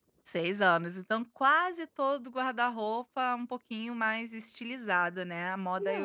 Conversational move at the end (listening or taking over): taking over